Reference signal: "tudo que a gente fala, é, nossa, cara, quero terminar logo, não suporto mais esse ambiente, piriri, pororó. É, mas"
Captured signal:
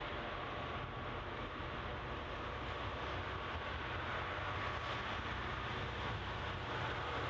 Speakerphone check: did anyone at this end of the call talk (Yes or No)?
No